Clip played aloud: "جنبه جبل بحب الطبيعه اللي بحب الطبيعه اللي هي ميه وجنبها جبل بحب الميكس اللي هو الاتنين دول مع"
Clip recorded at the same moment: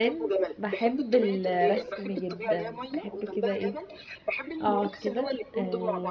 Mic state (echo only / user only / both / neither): both